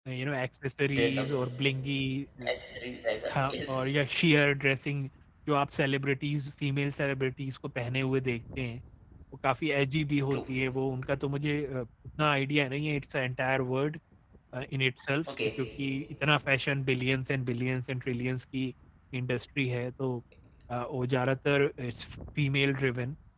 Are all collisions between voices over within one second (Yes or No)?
Yes